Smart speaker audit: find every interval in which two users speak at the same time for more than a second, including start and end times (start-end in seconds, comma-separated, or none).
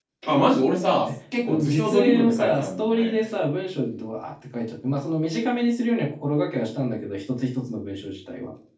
1.6-3.1